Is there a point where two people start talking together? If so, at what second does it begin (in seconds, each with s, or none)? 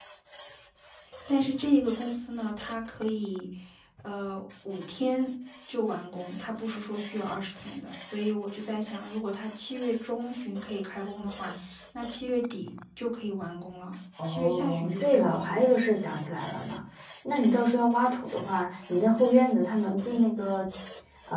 14.2 s